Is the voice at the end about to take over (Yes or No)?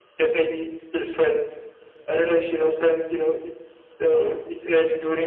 No